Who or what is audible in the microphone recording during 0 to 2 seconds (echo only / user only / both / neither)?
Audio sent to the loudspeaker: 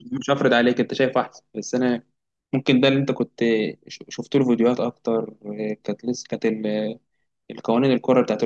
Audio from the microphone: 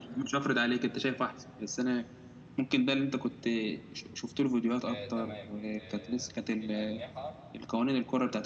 echo only